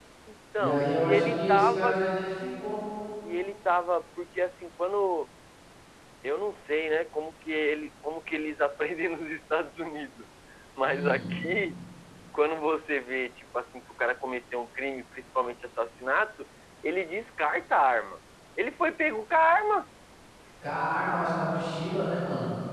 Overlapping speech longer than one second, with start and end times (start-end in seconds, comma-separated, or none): 0.6-2.0